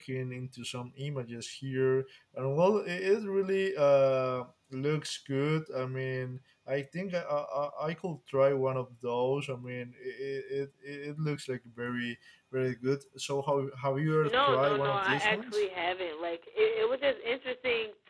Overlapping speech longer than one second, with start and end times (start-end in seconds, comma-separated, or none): 14.2-15.6